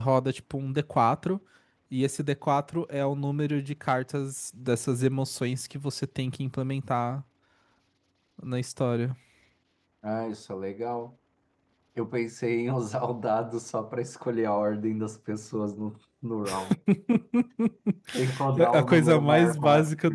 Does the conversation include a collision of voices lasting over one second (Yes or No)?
Yes